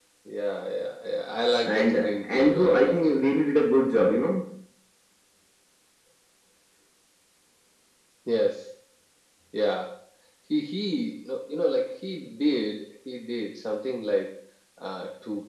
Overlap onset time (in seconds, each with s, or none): 1.6 s